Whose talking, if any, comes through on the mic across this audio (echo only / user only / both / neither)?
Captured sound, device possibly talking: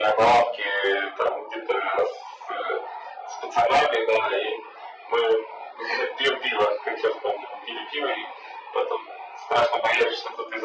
echo only